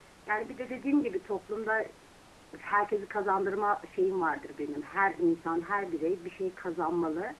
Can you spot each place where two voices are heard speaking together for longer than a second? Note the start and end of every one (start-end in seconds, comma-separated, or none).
none